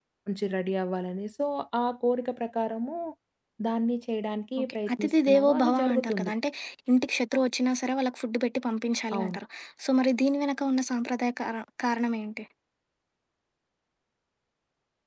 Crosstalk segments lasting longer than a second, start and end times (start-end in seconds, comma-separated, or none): 4.6-6.3